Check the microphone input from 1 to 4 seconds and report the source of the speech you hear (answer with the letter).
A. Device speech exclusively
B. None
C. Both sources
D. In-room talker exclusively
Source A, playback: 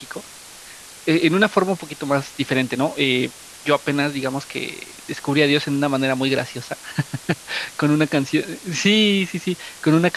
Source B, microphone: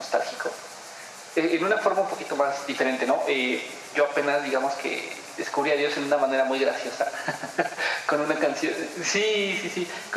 A